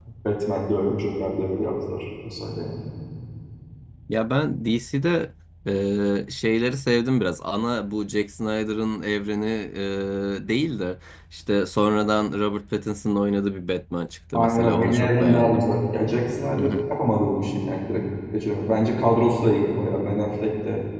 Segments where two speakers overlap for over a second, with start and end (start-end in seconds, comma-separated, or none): 14.3-15.7